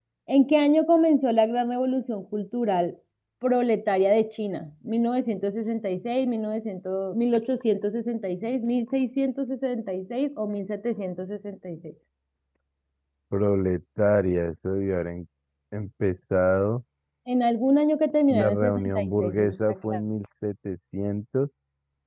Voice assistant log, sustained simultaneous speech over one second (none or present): present